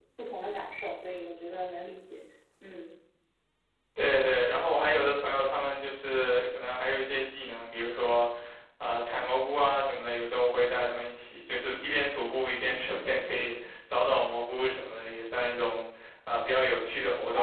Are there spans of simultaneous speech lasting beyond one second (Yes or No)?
No